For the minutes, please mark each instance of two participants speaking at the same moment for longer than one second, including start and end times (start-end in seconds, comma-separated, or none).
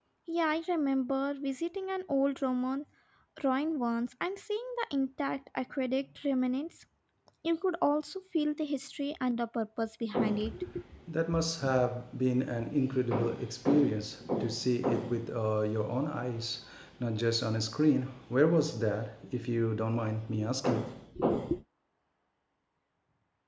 none